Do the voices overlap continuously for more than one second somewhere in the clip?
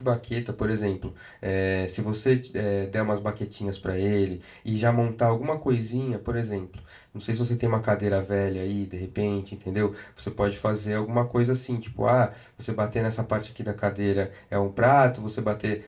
No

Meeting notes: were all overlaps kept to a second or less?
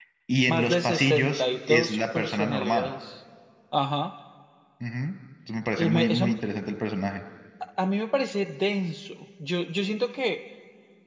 No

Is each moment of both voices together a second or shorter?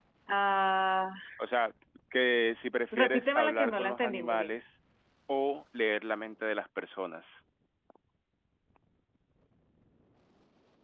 No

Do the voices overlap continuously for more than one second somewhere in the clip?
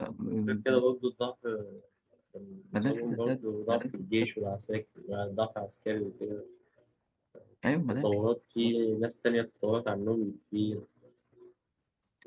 Yes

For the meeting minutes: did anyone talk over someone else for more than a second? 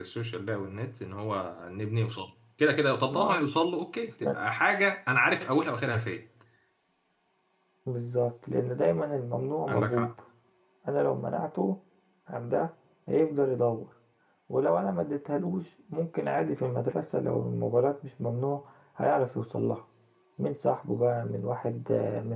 No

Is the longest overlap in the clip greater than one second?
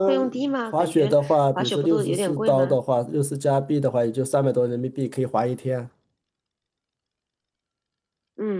Yes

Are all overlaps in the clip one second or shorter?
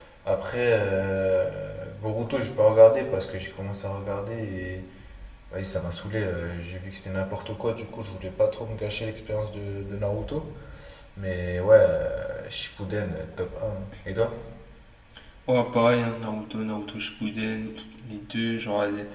Yes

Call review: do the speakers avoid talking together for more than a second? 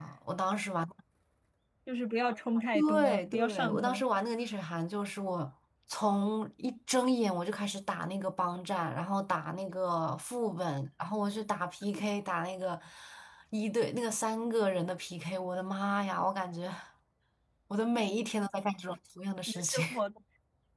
No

